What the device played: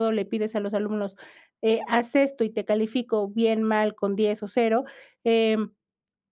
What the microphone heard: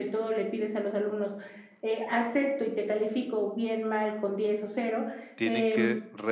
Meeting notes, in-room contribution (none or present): present